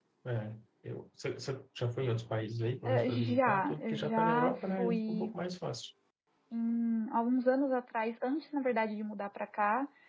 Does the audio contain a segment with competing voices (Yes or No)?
Yes